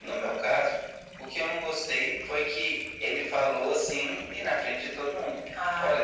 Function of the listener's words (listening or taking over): listening